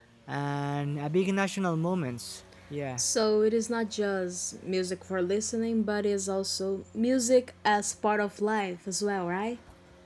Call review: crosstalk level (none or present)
none